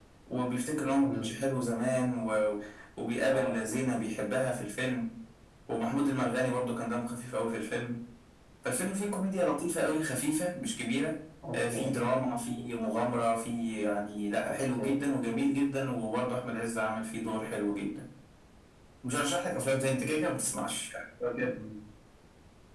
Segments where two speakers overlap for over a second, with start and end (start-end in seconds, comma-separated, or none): none